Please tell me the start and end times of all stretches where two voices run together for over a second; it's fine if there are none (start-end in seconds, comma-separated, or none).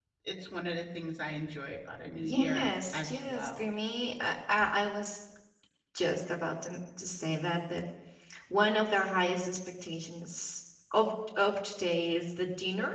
2.2-3.7